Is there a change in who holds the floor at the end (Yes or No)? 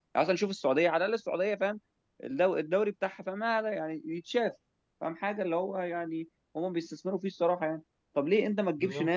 No